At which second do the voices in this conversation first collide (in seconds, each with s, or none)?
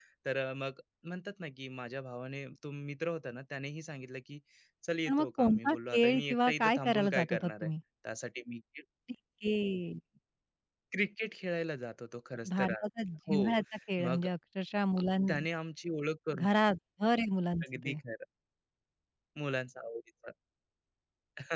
5.1 s